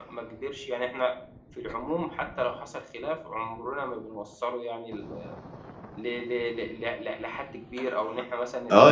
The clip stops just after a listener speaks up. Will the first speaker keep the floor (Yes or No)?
No